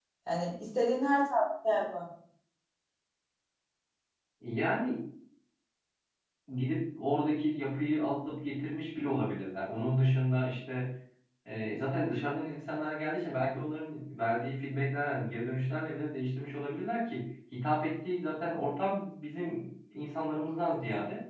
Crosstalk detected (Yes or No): No